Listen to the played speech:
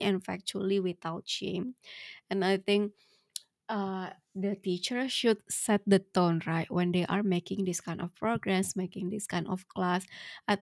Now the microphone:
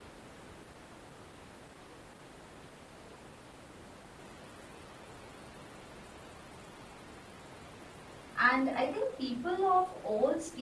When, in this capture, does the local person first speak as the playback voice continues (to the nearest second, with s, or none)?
8 s